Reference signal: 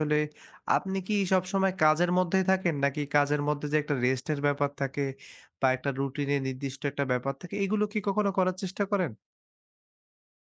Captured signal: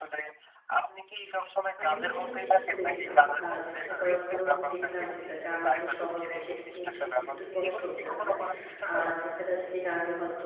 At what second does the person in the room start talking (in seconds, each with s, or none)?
1.8 s